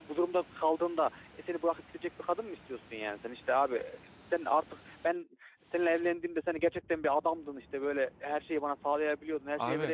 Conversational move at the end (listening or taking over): listening